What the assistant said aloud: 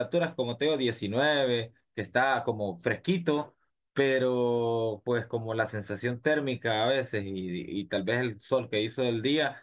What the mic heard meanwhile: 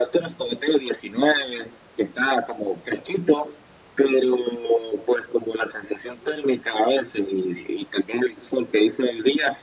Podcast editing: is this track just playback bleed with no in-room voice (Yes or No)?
Yes